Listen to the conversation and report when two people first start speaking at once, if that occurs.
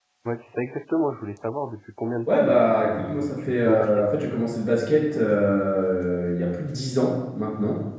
2.3 s

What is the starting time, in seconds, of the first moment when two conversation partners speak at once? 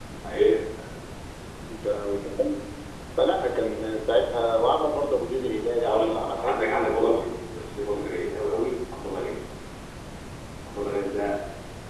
5.8 s

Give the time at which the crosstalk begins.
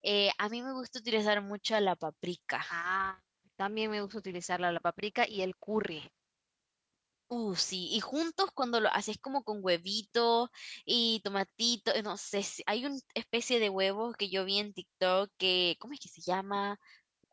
none

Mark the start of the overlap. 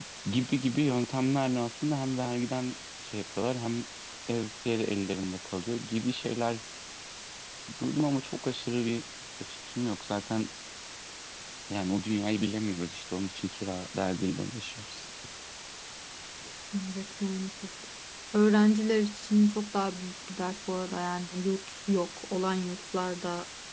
none

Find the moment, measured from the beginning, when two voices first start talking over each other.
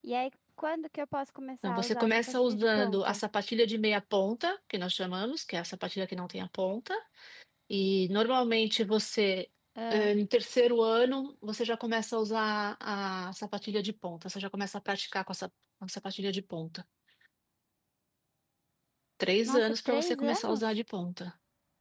1.6 s

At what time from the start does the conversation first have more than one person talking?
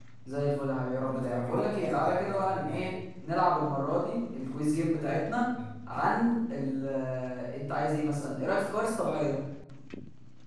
1.0 s

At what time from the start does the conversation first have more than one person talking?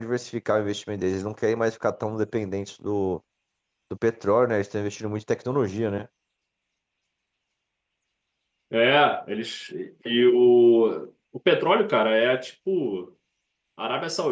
none

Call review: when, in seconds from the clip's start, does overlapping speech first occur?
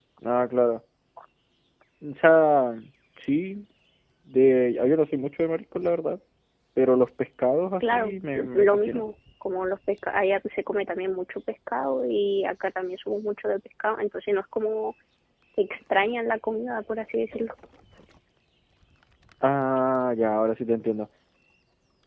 7.8 s

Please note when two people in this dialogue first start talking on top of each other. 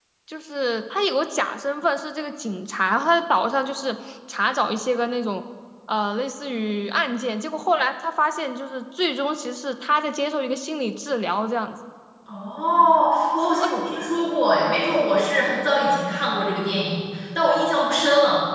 none

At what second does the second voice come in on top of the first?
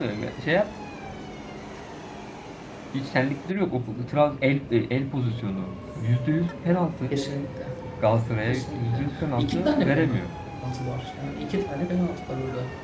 8.5 s

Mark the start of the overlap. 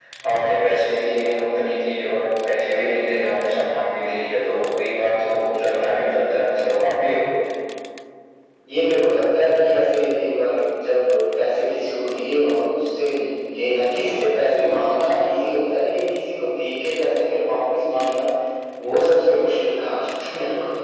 none

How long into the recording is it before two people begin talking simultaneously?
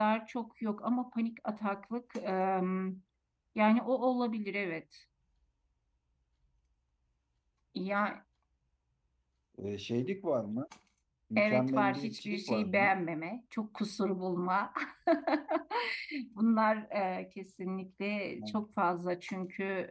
11.4 s

